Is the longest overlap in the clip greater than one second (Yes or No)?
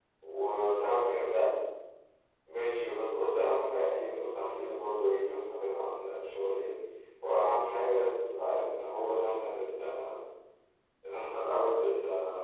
No